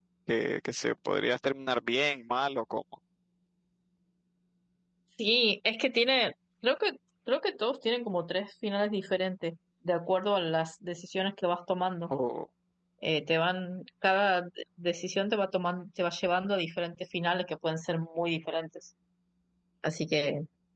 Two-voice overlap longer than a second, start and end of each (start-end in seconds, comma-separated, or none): none